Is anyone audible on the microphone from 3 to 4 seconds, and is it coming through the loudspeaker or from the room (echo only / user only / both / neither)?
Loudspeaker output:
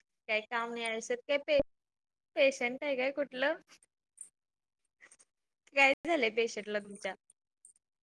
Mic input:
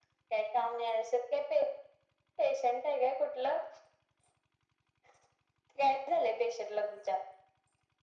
echo only